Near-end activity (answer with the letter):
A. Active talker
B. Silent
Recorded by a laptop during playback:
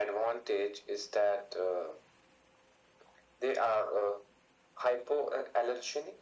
B